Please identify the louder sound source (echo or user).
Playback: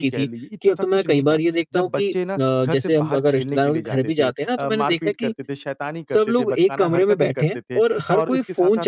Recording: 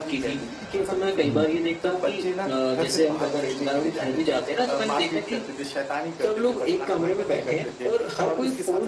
echo